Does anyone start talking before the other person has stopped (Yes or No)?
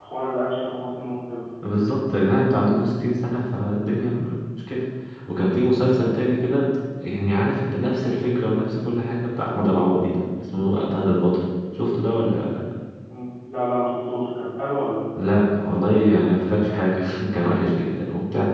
No